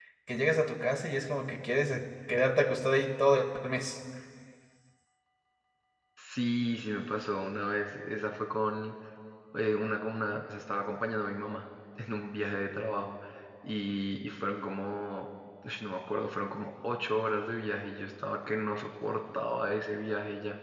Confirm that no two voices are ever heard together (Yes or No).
Yes